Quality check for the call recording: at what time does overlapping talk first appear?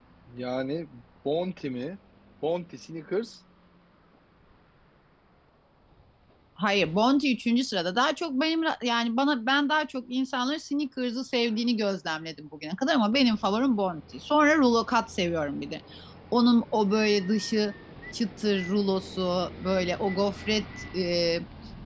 none

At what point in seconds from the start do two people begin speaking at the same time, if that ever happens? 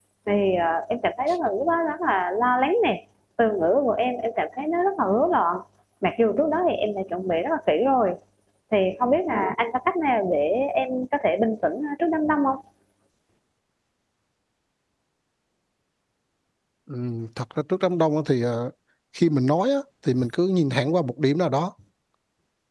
none

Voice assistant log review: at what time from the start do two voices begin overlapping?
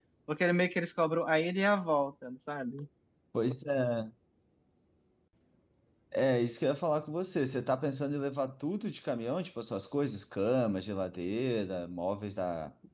none

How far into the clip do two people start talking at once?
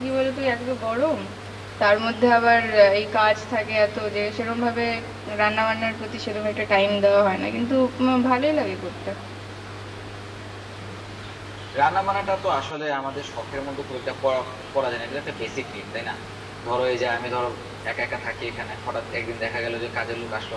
none

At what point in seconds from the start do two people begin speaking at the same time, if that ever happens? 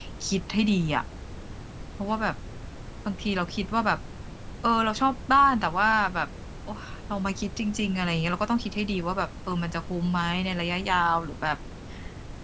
none

